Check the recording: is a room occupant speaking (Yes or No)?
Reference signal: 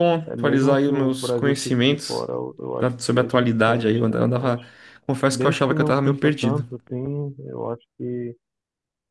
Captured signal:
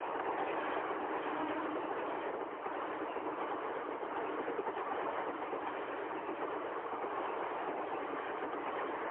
No